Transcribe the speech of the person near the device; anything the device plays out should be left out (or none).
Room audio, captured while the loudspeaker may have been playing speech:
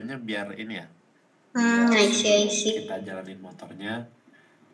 hmm, I see, I see.